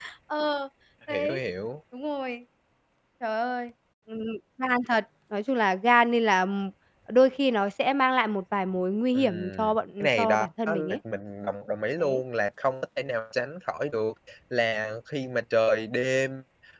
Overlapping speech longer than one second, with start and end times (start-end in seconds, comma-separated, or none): 9.2-11.0